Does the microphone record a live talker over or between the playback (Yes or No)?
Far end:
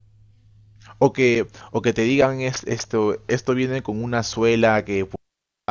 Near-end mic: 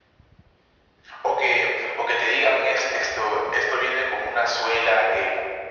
No